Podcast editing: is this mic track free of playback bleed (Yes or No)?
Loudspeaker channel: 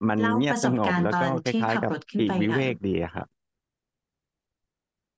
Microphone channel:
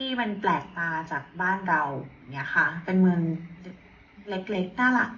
Yes